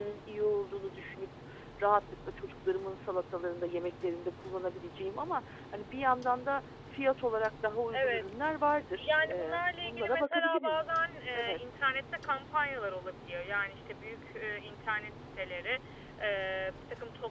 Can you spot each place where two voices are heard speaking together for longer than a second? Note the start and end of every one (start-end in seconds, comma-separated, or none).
9.0-10.8